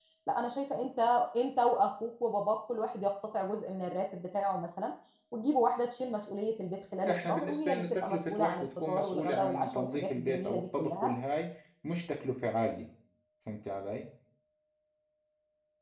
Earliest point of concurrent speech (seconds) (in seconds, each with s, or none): 7.1 s